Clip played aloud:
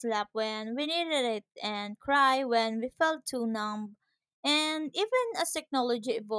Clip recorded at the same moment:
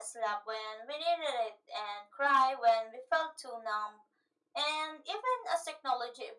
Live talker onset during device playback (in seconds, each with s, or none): none